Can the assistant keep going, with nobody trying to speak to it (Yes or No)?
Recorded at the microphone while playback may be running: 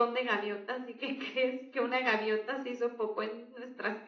Yes